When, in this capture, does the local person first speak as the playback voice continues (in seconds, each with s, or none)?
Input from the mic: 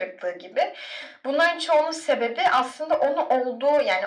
none